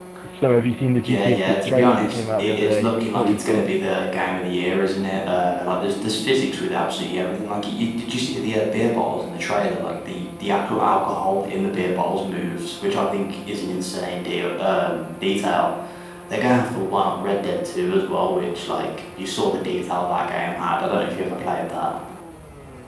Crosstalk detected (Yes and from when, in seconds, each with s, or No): Yes, from 1.0 s